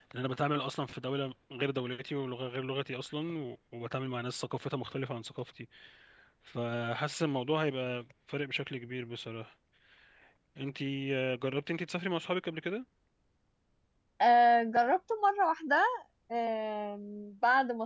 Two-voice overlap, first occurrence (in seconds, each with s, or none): none